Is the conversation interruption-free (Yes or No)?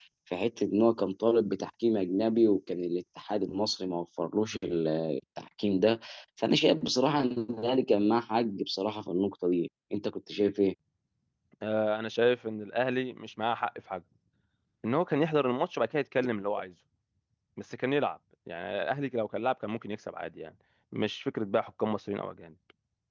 Yes